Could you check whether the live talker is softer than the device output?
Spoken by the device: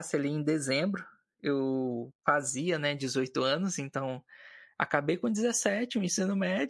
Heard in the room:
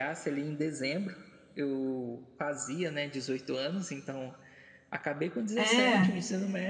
No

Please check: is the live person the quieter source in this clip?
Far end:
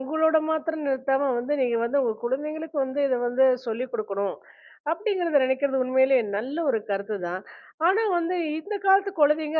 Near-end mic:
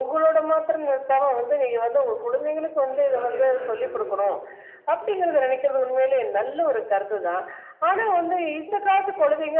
Yes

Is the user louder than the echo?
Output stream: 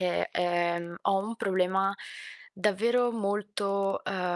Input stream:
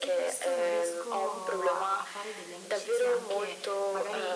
No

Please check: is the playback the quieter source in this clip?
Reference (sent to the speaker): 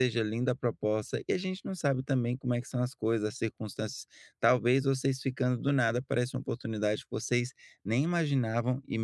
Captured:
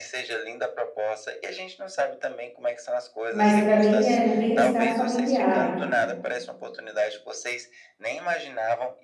Yes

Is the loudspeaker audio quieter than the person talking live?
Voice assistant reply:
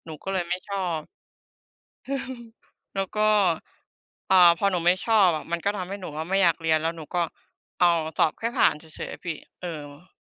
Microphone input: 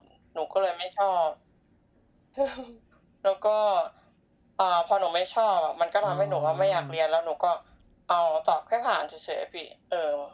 No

